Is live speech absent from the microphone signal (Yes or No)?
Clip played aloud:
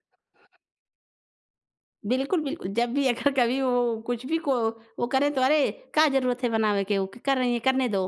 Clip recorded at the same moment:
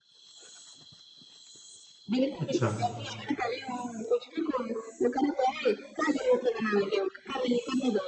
No